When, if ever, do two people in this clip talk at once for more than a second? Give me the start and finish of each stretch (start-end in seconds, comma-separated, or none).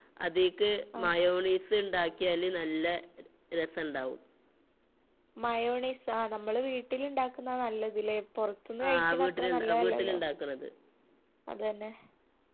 8.9-10.2